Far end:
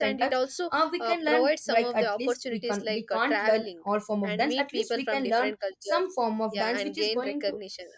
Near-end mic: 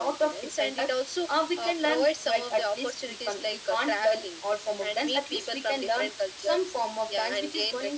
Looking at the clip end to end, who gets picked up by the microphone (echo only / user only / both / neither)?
echo only